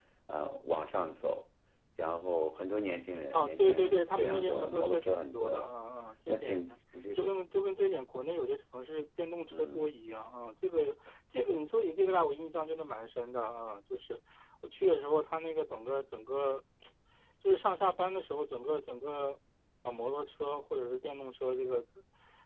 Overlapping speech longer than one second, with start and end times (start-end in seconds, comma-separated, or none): 3.3-5.7